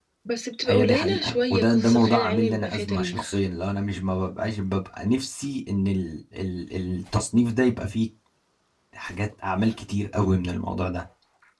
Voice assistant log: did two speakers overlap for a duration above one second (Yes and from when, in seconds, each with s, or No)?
Yes, from 0.7 s